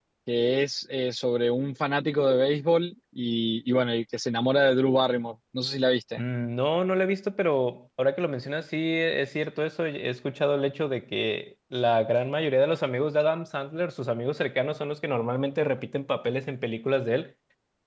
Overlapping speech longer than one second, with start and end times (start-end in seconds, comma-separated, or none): none